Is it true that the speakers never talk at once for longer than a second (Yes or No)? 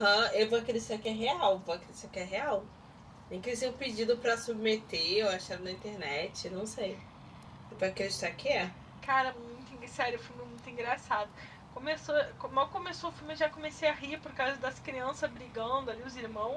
Yes